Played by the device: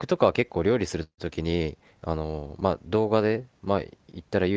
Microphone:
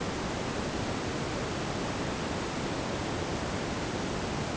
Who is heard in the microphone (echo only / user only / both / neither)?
neither